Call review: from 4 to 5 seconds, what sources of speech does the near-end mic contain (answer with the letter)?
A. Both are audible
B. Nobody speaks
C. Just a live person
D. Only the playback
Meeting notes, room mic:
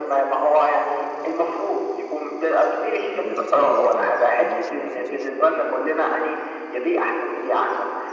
A